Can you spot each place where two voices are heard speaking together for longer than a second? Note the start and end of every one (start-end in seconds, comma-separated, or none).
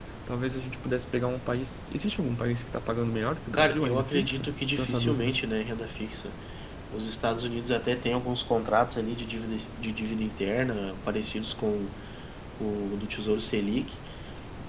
3.5-5.4